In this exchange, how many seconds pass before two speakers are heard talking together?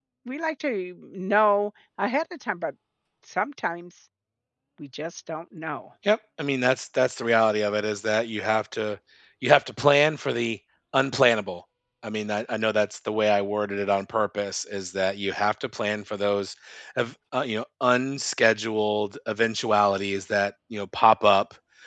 none

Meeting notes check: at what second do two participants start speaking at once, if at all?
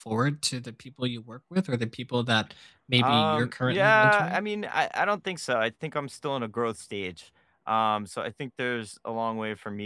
3.0 s

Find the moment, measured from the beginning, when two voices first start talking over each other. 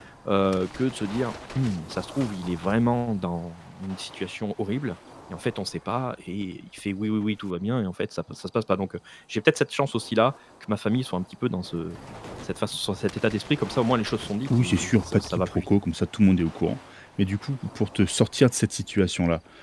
14.4 s

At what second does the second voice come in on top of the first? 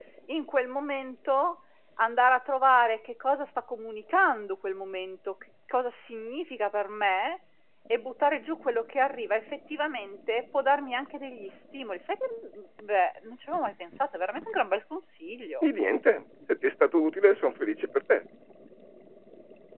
none

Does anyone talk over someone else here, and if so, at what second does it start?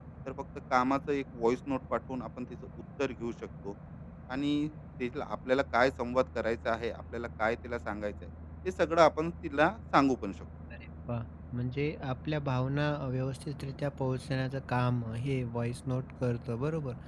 none

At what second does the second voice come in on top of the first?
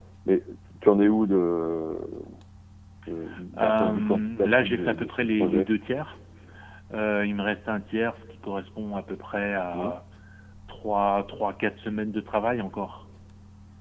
3.6 s

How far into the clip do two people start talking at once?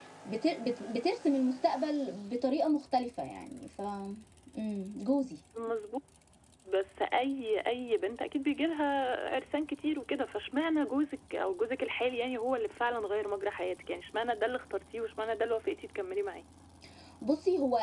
none

